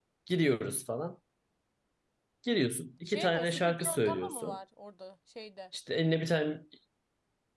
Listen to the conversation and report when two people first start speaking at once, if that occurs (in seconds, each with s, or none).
3.1 s